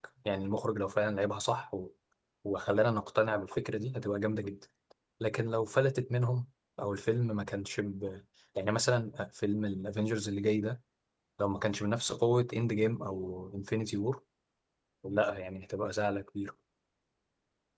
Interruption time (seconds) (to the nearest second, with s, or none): none